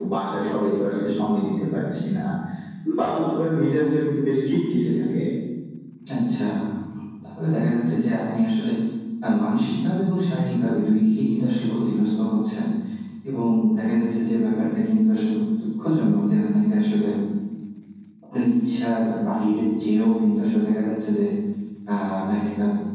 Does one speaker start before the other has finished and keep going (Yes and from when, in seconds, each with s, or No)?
No